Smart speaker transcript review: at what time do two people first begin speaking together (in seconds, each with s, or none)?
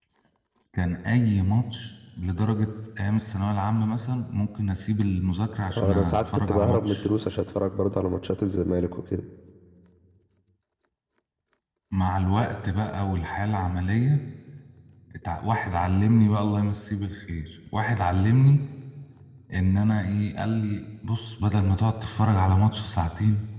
5.7 s